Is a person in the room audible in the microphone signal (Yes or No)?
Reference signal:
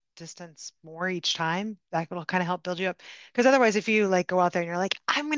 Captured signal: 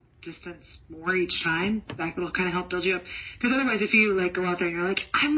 No